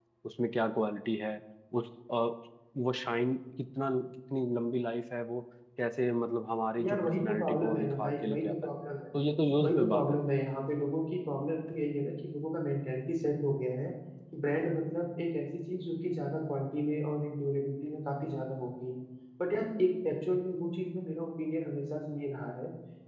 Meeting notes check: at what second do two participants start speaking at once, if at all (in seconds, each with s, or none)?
6.8 s